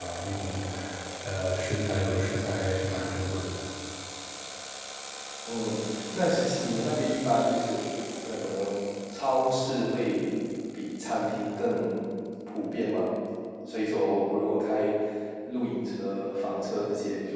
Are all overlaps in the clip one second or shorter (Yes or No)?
Yes